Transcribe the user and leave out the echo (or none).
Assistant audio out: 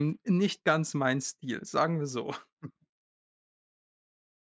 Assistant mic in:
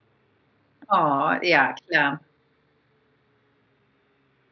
Oh, ja, klar.